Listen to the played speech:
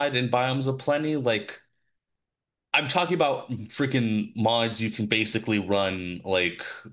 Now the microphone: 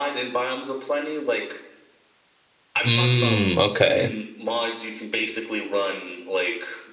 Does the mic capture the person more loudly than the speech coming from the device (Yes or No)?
Yes